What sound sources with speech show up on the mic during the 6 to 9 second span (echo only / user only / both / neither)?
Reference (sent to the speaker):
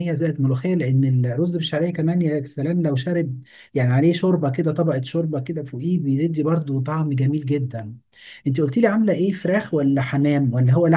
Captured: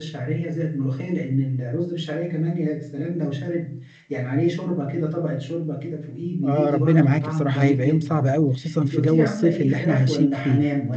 both